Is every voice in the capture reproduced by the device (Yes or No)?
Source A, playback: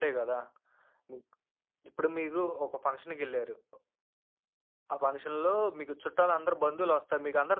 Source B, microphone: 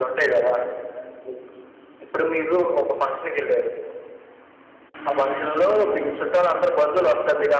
Yes